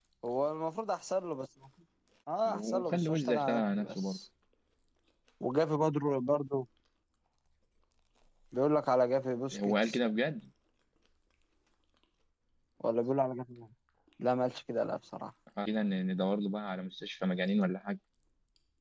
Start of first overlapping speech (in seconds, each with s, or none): 2.5 s